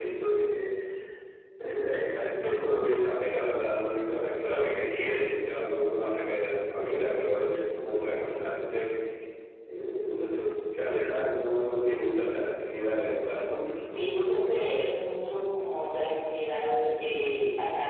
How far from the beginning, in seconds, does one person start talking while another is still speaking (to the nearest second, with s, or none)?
none